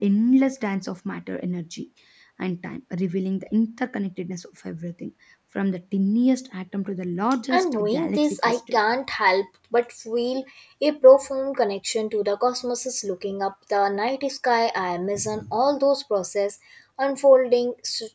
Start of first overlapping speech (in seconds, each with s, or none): 7.5 s